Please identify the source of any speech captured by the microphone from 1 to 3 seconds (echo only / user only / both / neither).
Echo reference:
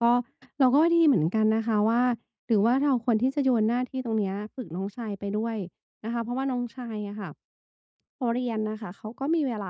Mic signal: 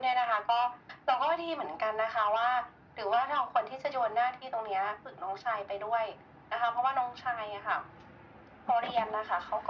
echo only